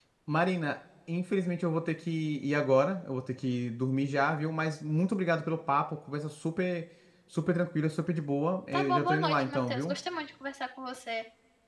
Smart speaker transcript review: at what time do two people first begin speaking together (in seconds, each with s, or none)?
8.7 s